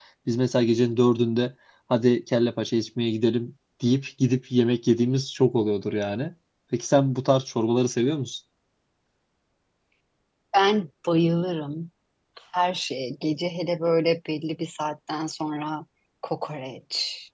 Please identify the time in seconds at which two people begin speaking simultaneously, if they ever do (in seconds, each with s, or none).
none